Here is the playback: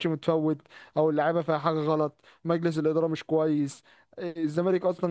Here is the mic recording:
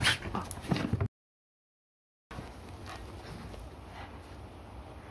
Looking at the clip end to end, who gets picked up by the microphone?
neither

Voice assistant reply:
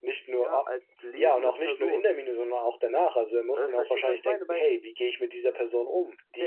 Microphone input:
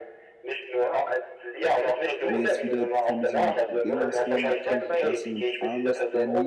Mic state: both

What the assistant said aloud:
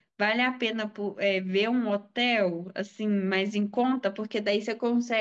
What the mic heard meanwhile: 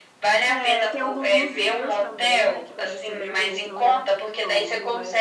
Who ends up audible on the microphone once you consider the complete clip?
both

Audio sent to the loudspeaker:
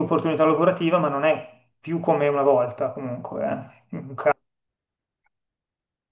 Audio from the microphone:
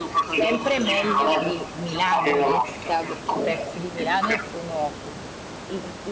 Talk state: both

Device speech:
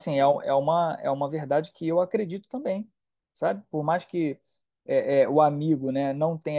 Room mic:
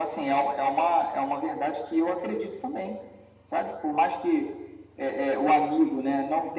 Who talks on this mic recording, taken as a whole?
echo only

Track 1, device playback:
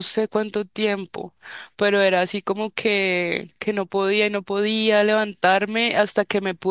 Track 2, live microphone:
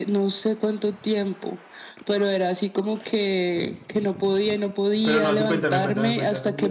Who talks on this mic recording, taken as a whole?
both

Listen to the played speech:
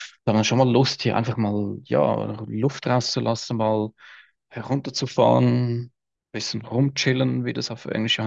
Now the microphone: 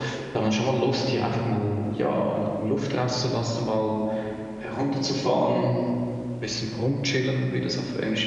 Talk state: echo only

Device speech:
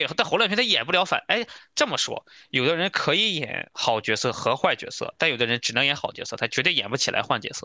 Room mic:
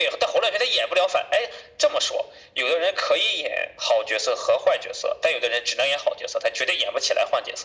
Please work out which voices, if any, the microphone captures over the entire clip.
echo only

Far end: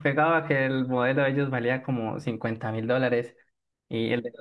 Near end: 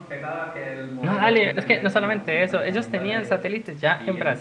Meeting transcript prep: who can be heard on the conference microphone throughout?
both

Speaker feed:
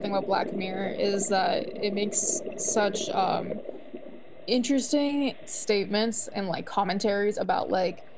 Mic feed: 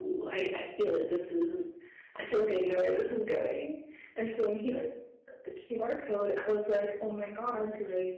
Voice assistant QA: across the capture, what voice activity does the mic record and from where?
user only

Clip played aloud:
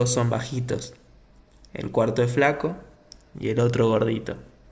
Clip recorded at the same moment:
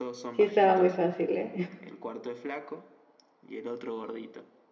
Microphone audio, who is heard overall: both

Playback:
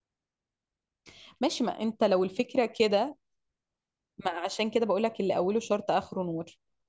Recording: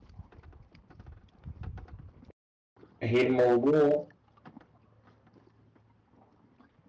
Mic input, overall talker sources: user only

